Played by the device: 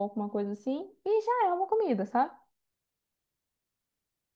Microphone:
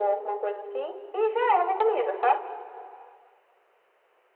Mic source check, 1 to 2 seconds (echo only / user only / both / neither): echo only